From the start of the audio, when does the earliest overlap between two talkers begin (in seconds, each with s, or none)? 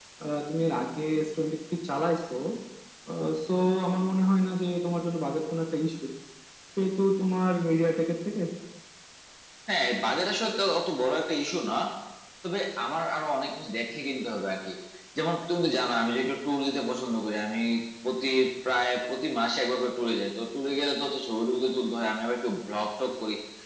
none